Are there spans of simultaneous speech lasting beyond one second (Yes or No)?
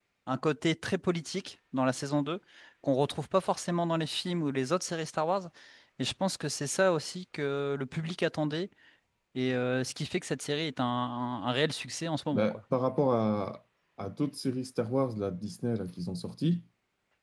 No